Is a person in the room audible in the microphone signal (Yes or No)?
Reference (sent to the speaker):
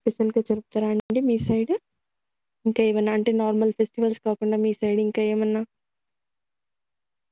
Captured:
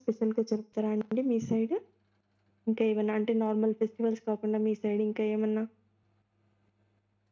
No